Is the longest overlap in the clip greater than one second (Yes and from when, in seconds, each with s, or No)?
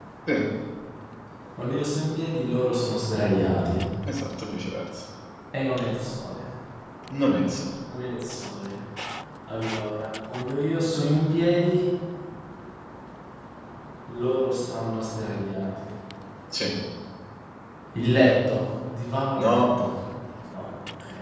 No